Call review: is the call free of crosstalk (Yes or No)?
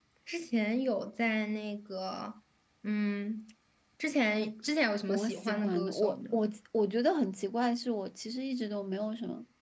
No